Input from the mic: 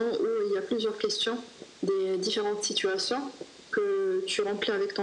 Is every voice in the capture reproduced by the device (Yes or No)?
Yes